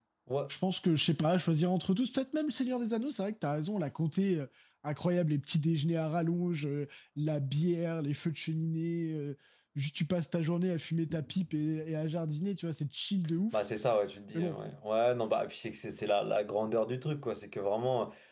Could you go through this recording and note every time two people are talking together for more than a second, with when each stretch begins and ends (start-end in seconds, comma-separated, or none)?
none